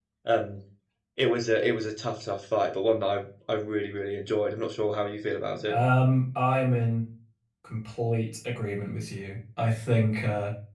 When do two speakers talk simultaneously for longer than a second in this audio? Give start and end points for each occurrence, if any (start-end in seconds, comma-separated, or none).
none